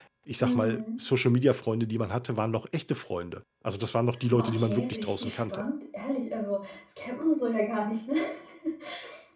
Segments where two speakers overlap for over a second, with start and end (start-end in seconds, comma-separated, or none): 4.4-5.7